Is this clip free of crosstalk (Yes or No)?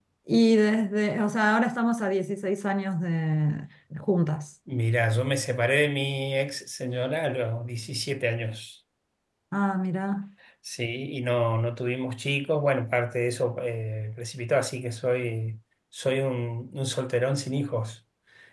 Yes